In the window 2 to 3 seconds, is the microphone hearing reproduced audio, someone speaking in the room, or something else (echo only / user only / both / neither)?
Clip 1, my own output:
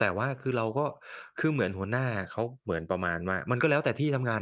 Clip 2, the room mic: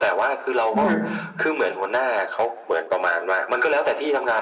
echo only